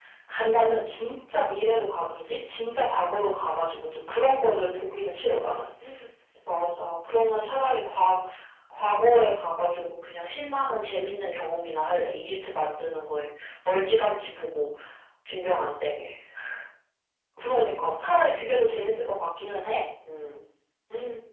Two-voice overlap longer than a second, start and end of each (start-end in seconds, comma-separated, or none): none